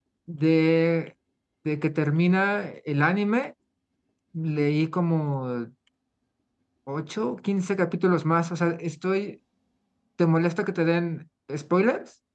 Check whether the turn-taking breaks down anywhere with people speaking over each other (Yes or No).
No